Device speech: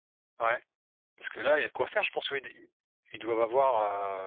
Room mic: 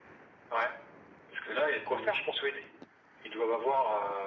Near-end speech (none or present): present